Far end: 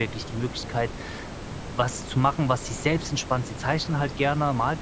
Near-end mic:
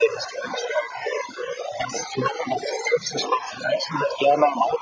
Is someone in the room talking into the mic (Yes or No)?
No